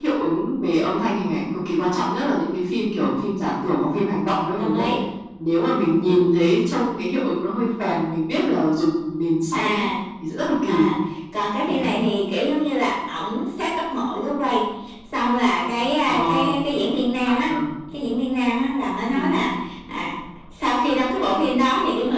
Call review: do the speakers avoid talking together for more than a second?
Yes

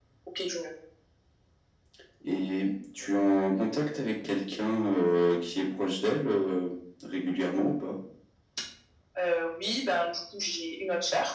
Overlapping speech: No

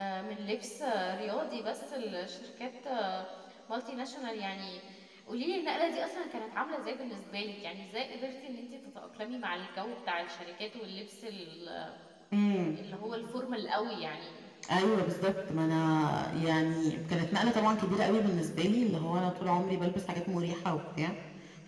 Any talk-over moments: No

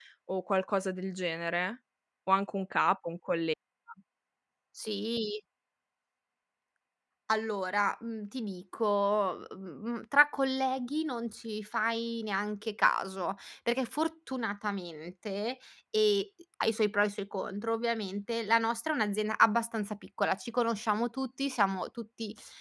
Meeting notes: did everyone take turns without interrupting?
Yes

